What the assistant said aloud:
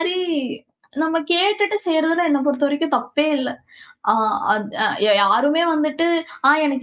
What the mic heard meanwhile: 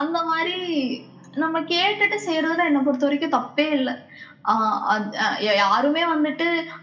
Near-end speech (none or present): none